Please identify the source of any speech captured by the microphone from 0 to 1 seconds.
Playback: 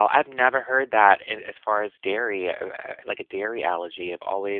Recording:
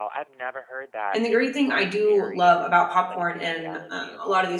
echo only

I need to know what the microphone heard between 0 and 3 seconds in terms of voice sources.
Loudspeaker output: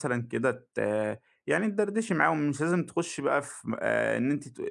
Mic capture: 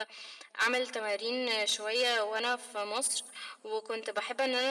user only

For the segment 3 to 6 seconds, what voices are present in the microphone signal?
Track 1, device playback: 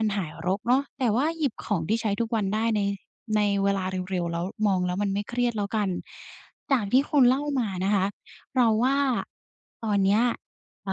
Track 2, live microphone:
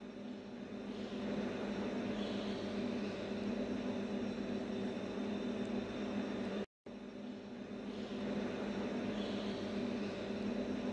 neither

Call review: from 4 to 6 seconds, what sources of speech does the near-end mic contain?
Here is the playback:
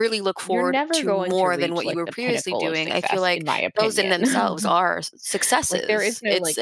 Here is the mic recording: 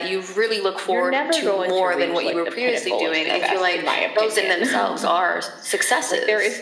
echo only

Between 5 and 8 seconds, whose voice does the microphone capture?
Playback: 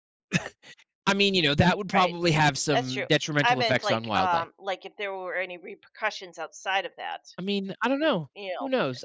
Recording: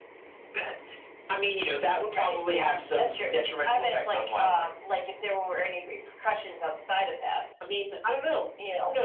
echo only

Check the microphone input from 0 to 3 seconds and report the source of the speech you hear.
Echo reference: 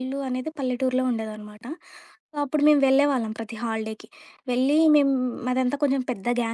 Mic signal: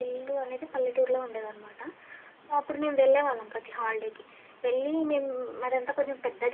echo only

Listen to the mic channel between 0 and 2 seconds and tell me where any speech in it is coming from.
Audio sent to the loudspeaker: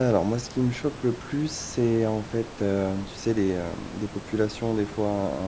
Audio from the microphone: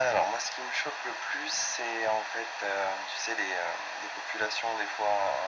echo only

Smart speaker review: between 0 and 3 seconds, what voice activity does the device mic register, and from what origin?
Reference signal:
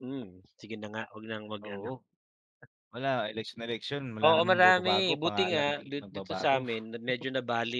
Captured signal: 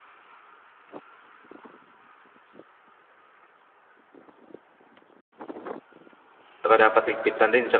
neither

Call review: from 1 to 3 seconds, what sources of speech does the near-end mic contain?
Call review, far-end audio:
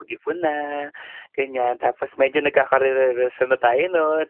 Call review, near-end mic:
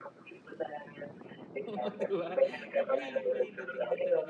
both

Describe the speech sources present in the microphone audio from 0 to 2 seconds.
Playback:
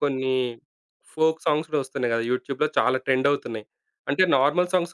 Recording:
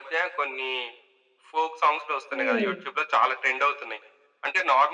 echo only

